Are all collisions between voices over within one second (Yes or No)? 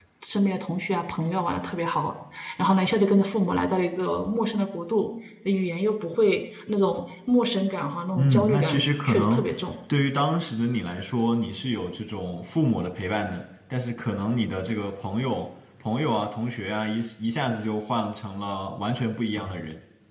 No